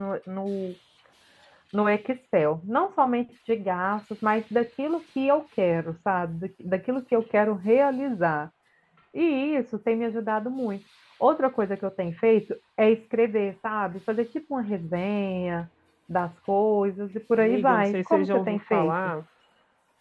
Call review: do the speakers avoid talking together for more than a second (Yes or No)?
No